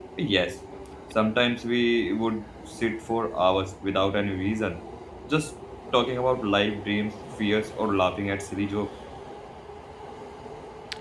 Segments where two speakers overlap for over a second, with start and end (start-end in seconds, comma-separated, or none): none